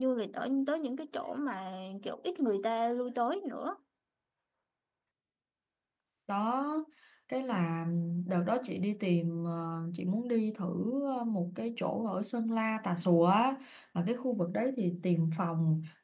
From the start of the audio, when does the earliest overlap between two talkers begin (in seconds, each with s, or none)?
none